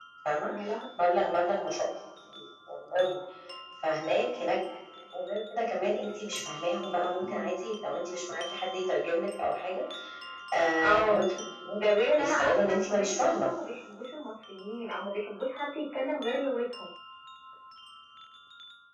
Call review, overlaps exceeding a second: present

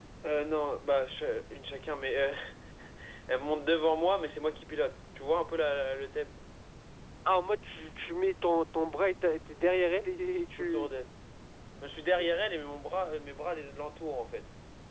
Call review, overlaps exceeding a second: none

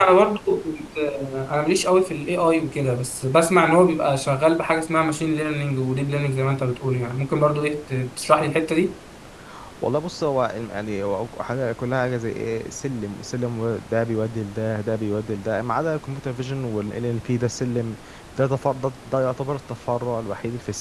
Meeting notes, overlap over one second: none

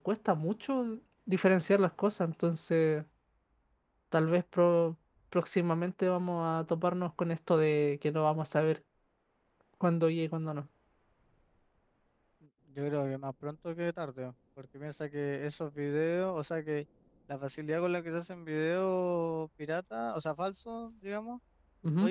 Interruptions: none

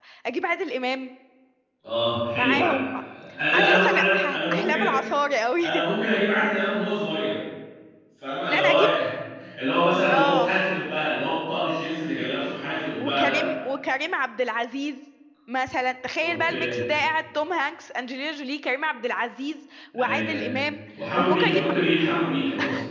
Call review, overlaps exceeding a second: present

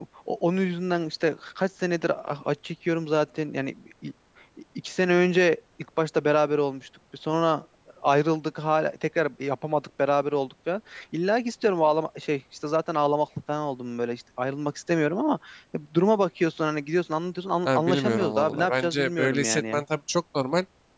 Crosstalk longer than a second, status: present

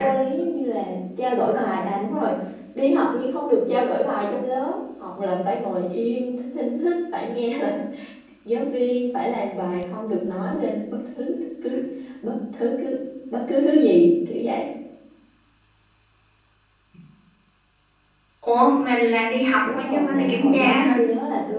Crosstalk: present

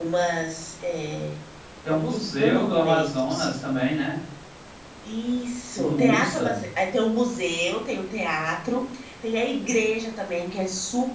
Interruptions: present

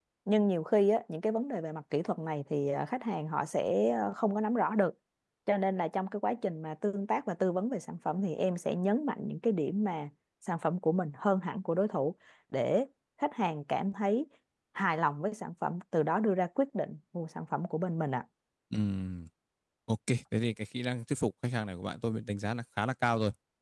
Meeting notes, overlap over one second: none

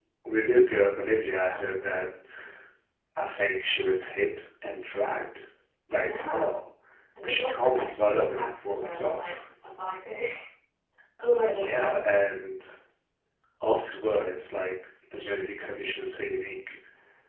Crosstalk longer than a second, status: present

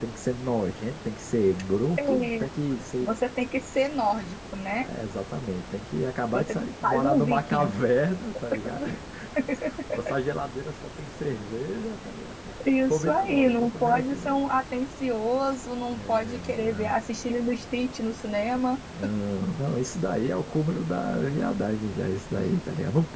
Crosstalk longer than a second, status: present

